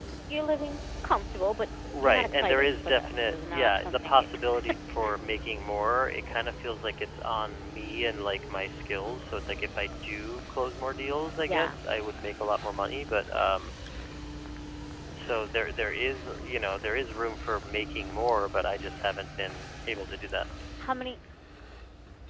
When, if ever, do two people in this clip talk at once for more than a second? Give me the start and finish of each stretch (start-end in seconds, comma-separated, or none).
2.0-4.2